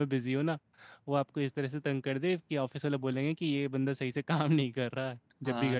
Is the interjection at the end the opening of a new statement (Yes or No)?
Yes